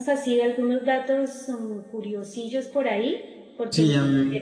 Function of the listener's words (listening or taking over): taking over